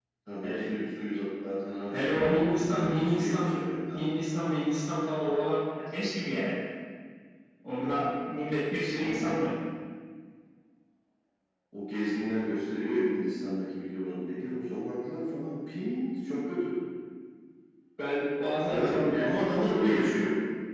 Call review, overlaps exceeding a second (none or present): present